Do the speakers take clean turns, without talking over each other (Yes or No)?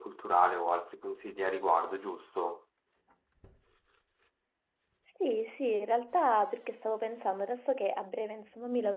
Yes